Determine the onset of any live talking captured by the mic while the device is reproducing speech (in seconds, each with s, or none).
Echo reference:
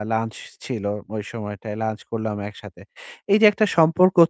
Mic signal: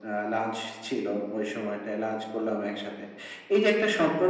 none